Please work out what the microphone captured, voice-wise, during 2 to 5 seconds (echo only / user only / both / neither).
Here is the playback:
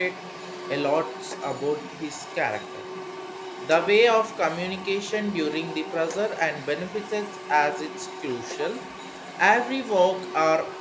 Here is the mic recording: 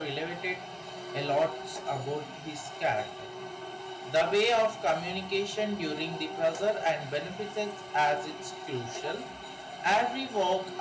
echo only